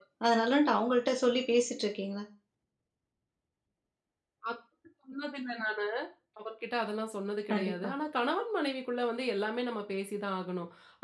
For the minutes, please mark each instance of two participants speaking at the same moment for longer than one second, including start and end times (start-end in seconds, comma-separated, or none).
none